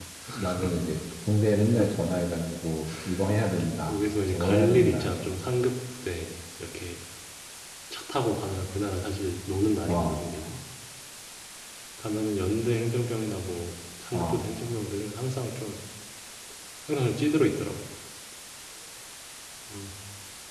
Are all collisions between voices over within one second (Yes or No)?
No